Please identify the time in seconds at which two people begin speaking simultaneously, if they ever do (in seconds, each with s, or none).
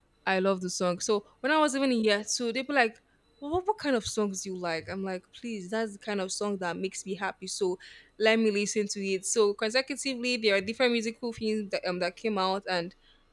none